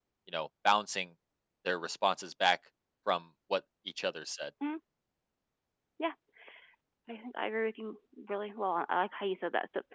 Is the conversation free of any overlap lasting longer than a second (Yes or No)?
Yes